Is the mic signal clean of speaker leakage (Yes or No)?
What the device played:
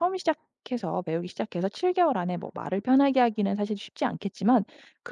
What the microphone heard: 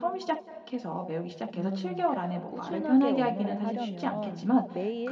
No